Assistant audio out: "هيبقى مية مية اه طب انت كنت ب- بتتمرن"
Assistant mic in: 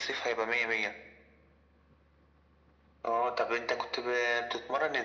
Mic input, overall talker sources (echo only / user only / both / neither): echo only